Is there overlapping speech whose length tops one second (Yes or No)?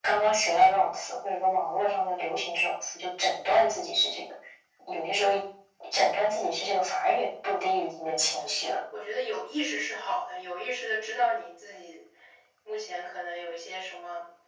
No